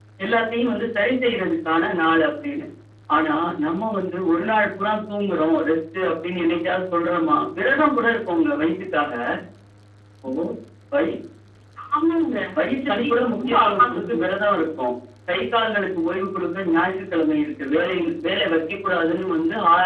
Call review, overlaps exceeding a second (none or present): present